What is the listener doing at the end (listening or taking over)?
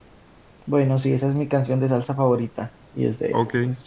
taking over